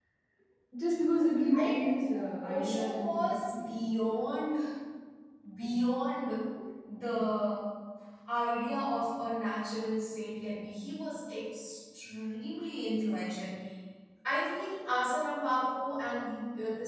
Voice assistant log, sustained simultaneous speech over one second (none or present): present